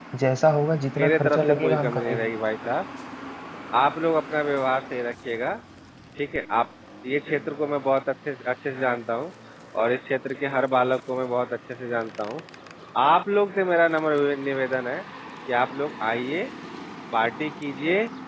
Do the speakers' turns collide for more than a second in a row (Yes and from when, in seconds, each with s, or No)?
Yes, from 1.0 s